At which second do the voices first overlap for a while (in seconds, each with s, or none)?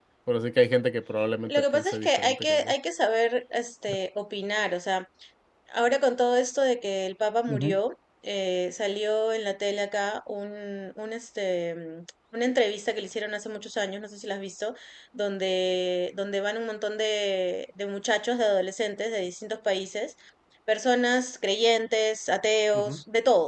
1.5 s